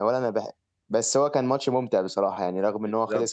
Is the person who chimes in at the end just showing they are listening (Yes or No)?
No